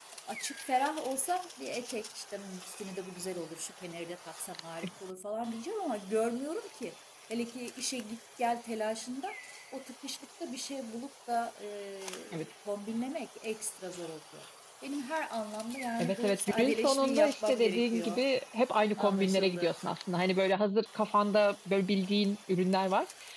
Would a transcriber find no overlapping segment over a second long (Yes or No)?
No